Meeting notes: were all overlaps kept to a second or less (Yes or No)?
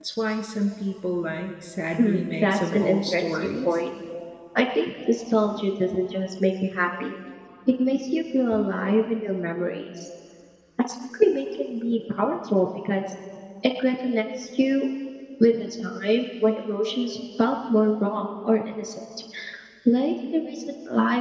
No